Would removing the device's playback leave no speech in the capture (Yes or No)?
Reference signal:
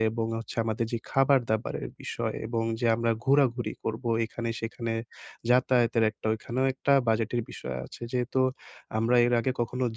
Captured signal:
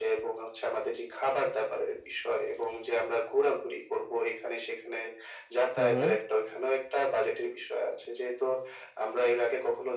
No